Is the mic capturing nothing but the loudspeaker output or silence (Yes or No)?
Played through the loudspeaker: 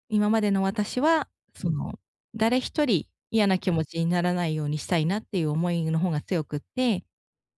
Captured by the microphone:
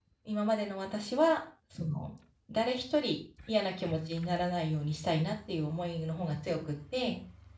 Yes